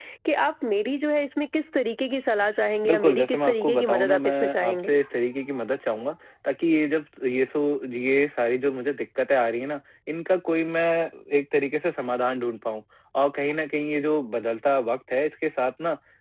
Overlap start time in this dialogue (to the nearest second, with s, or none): 3 s